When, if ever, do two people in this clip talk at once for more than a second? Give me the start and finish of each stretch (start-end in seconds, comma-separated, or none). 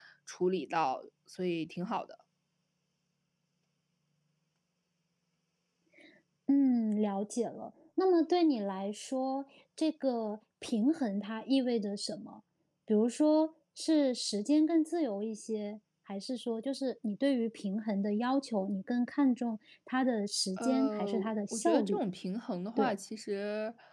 20.6-22.0